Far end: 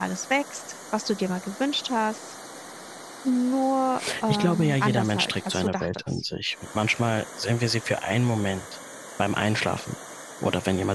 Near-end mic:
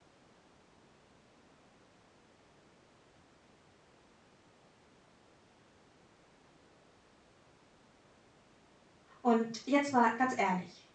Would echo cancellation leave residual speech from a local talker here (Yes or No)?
Yes